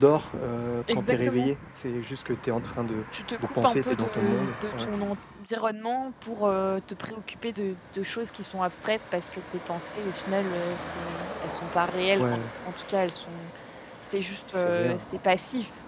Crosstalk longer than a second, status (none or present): present